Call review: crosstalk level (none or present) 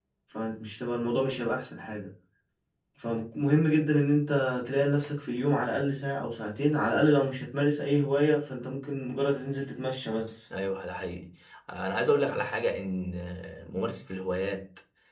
none